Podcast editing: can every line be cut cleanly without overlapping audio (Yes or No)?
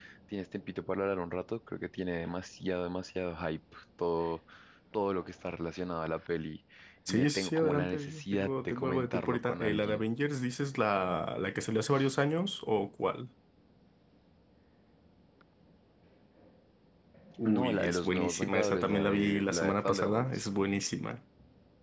No